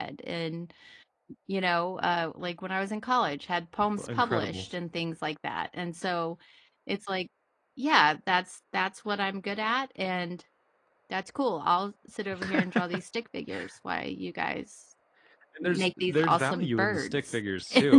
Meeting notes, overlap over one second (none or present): present